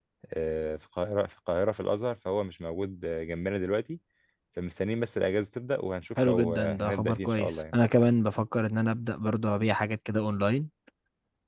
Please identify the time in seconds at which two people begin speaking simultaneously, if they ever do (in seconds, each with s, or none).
6.2 s